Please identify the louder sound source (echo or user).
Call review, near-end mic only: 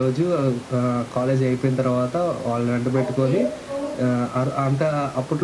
echo